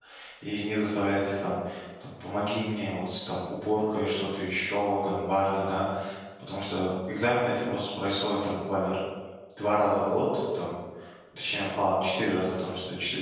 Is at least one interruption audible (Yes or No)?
No